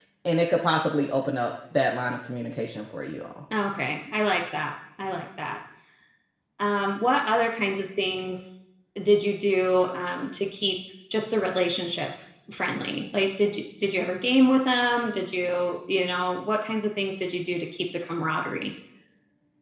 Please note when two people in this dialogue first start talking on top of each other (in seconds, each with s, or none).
none